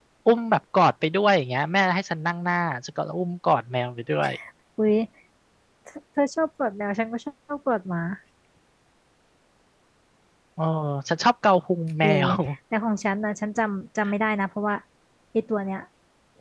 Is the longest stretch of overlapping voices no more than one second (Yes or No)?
Yes